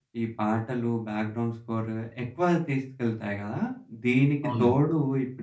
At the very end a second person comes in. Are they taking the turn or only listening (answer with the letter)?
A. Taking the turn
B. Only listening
B